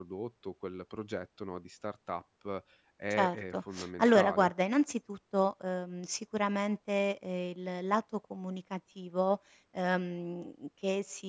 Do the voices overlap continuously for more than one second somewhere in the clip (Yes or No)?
Yes